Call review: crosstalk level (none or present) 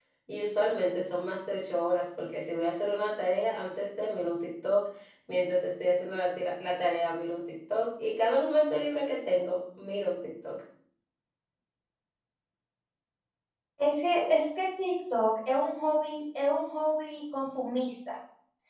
none